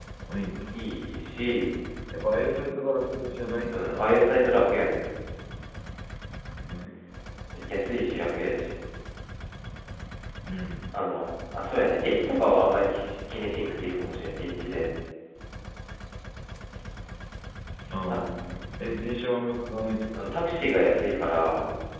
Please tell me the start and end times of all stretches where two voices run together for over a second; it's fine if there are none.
none

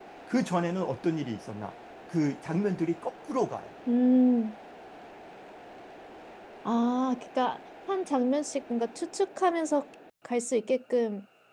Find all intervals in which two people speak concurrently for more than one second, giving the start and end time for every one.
none

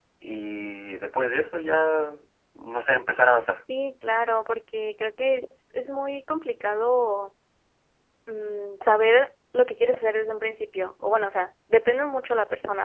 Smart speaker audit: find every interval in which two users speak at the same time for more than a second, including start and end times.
none

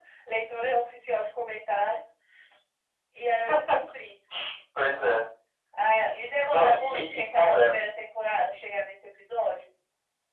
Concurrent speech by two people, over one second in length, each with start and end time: 6.5-7.7

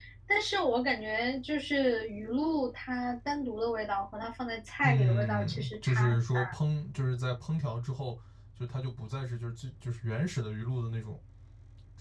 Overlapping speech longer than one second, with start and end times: 4.8-6.5

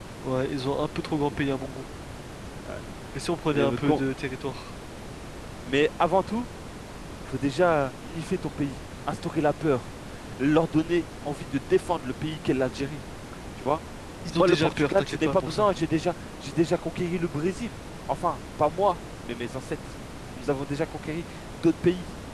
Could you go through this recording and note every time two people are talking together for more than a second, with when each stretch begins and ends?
14.3-15.7

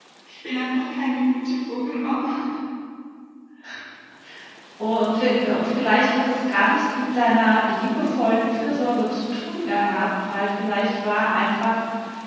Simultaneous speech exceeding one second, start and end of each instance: none

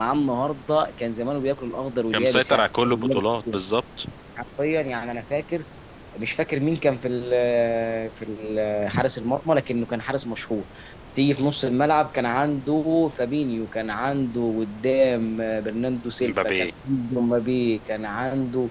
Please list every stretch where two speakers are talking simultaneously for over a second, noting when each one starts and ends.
none

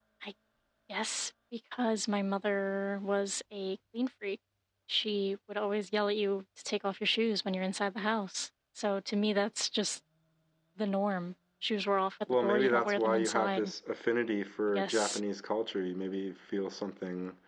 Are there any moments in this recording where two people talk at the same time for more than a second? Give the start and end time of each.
12.4-13.7

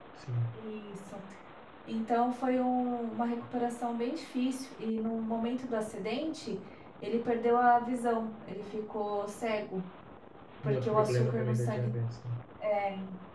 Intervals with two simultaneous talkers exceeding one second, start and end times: 10.6-11.9

